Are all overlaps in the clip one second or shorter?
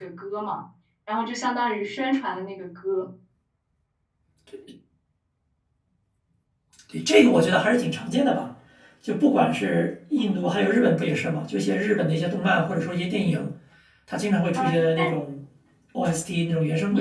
Yes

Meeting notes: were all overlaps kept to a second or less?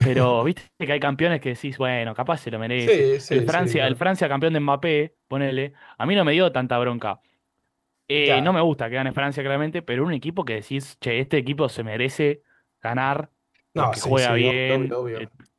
No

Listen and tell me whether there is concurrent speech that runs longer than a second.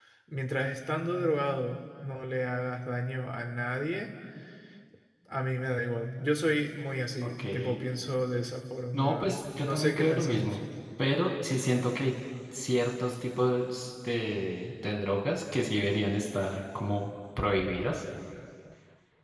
Yes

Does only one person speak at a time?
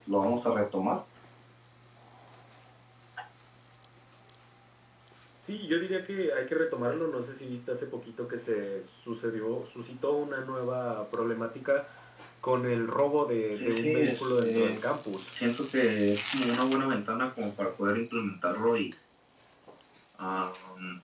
No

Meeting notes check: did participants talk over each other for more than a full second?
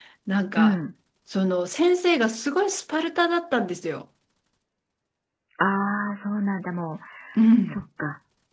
No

